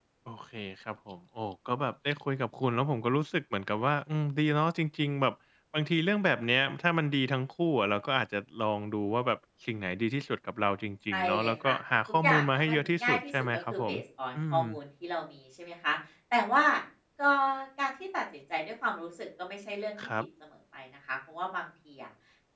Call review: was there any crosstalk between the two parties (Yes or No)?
Yes